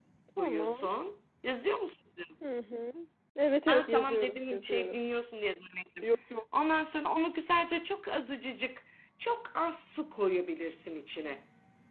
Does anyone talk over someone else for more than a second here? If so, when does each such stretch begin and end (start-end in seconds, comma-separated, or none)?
3.7-5.0